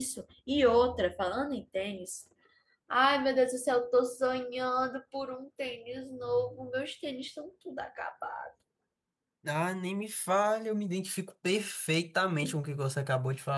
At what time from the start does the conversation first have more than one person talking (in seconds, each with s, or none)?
none